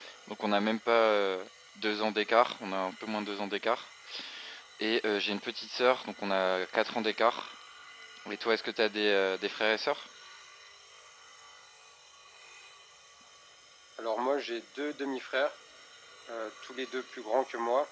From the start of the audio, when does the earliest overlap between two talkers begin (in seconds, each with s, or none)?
none